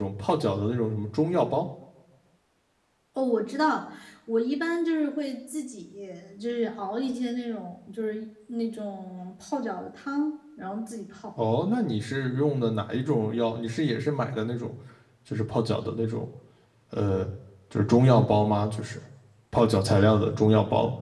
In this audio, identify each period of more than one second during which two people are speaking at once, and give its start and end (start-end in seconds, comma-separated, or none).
none